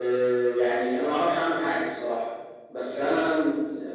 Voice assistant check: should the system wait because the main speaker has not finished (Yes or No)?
Yes